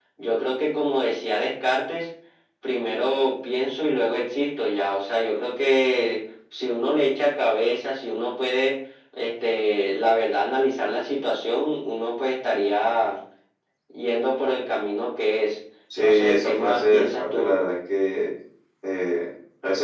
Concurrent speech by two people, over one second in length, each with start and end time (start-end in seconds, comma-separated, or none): 16.0-17.5